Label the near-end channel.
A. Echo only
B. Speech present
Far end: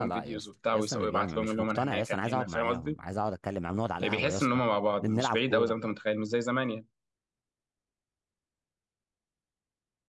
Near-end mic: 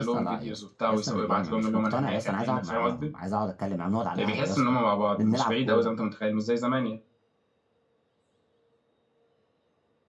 A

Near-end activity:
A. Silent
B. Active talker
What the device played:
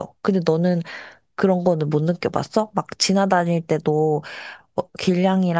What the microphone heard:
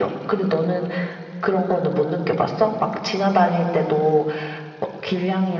A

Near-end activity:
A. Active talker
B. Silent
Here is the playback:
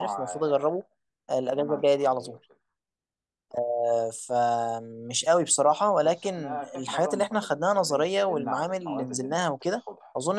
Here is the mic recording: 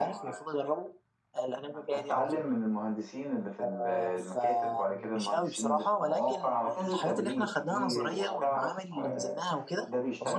A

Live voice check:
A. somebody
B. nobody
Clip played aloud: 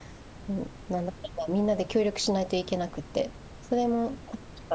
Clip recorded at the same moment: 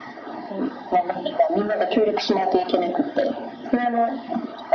B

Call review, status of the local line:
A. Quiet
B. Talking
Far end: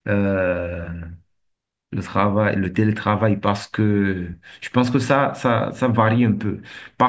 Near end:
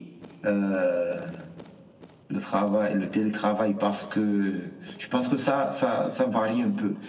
A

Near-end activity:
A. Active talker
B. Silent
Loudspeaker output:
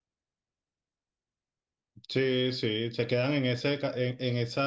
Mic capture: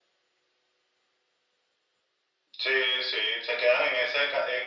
B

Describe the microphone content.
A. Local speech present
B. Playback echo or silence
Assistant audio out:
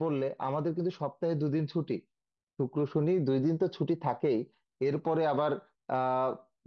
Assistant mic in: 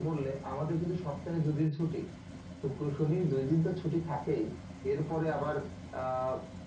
B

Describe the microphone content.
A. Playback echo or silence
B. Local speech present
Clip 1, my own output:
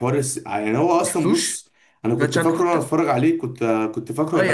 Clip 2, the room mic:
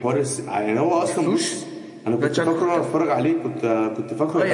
A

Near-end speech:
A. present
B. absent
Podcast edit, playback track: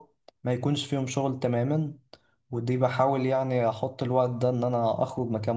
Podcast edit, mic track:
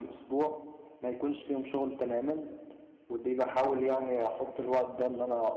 B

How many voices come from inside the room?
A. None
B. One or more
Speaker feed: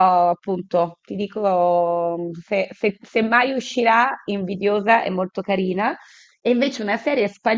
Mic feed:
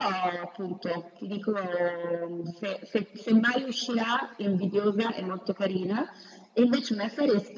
A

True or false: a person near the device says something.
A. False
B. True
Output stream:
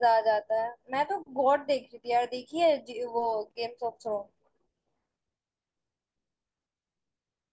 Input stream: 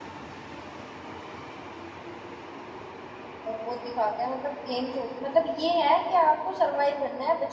B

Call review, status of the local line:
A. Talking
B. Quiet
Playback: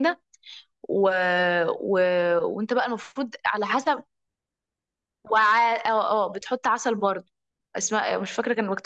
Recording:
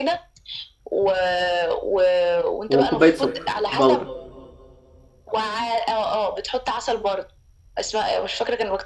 A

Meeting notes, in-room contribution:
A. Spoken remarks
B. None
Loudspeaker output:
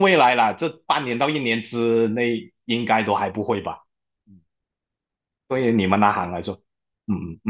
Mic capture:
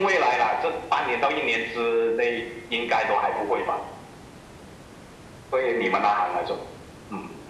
B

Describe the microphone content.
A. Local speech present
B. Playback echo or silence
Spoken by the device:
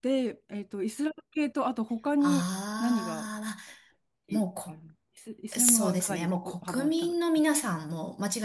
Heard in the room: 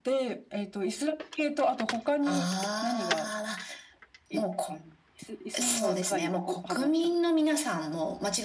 B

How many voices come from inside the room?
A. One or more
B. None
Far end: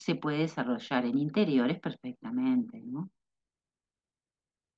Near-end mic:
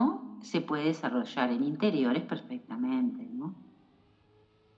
B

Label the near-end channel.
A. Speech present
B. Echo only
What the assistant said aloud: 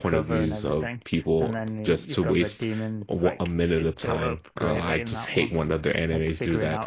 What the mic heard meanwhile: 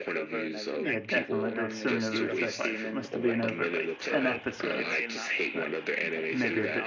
A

